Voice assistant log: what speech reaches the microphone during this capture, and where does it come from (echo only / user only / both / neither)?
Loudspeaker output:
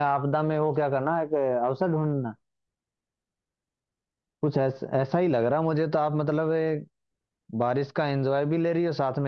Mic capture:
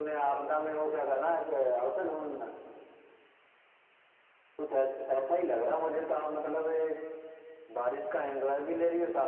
echo only